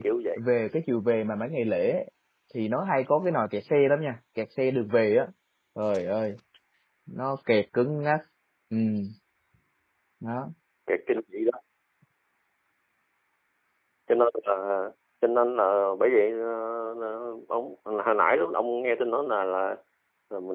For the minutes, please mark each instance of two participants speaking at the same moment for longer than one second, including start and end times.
none

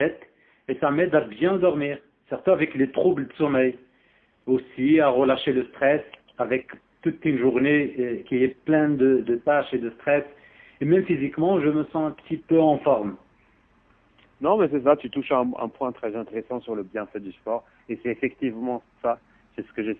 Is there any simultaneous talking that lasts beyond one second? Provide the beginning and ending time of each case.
none

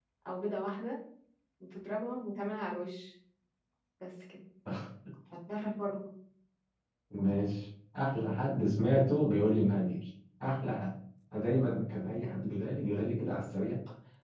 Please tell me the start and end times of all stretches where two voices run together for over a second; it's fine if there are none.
none

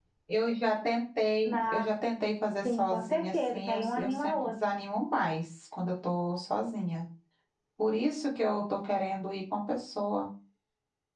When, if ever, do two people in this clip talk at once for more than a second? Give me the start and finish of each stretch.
2.6-4.5

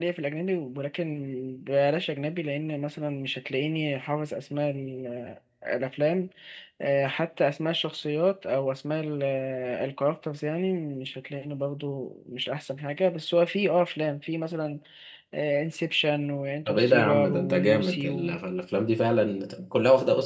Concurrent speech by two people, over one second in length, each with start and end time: 16.7-18.4

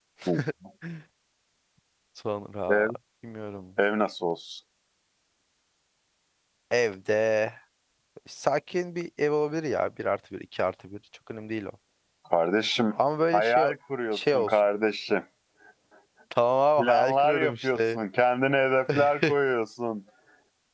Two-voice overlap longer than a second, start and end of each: 16.8-18.0

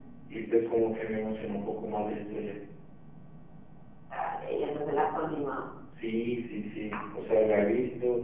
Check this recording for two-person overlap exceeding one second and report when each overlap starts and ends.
none

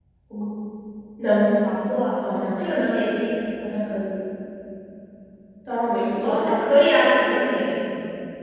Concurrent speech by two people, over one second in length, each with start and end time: none

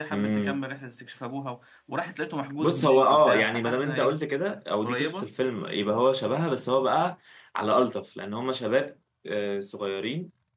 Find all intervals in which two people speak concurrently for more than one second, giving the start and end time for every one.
2.6-4.2

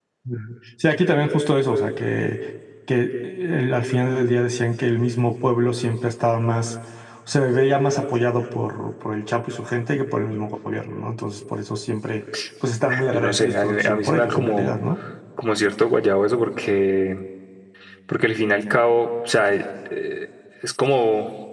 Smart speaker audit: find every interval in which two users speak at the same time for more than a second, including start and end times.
13.1-14.7

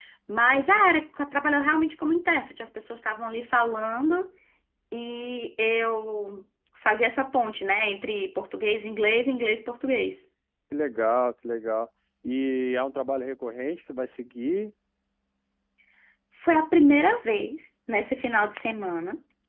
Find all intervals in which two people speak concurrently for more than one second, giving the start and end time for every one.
none

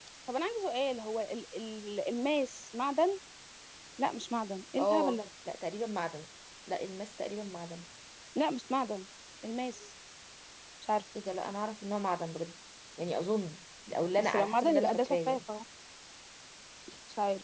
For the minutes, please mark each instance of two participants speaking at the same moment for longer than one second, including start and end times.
14.2-15.4

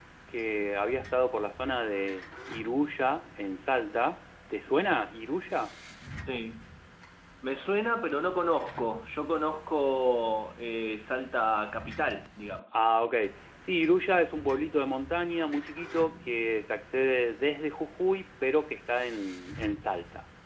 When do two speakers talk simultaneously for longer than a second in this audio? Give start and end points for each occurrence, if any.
none

